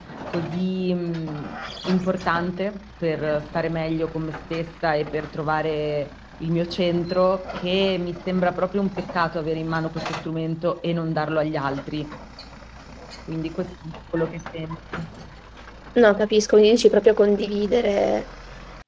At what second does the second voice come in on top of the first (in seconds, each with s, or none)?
none